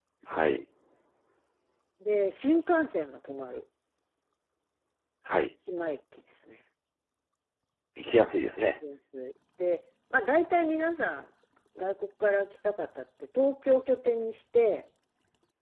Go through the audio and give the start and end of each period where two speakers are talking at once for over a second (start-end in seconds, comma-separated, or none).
none